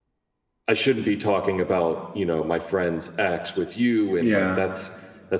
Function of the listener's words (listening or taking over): listening